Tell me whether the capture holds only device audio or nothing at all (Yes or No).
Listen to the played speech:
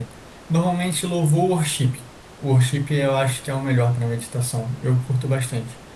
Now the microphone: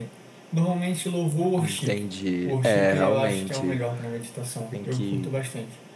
No